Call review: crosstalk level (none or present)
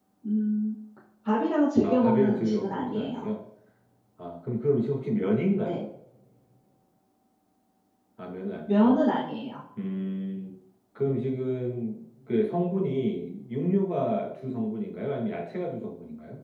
present